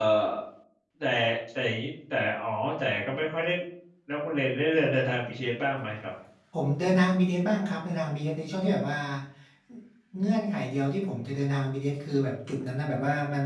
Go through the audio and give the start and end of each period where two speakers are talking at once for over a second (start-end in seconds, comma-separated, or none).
none